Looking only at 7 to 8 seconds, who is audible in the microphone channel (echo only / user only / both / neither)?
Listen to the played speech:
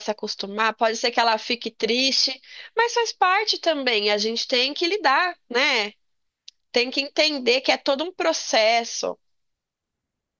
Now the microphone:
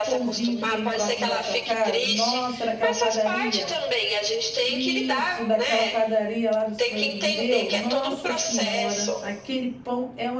both